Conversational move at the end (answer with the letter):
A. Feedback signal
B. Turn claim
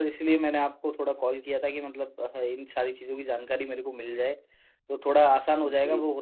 A